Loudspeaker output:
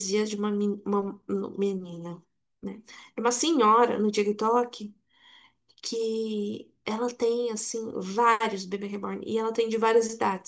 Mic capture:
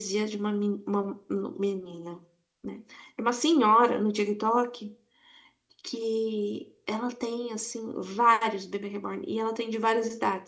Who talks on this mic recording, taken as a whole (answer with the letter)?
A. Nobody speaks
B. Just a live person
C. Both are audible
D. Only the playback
D